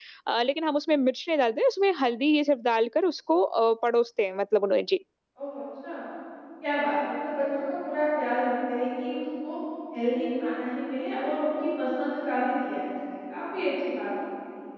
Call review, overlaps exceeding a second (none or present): none